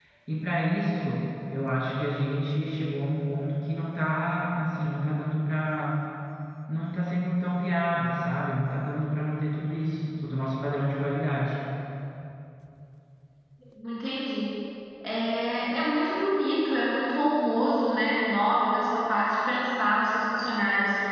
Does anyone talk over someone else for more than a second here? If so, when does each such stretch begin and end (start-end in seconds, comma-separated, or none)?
none